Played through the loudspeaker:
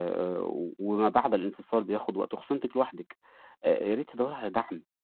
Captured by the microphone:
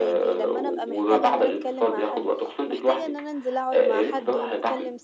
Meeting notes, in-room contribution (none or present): present